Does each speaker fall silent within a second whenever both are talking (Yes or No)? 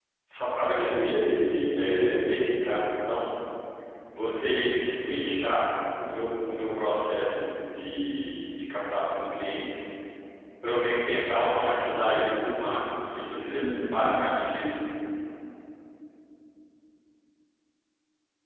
No